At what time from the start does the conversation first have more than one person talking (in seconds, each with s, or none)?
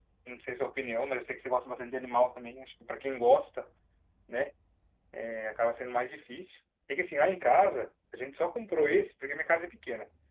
none